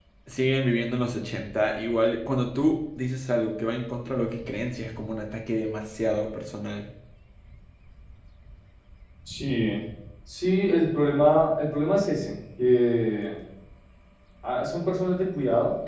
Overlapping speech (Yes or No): No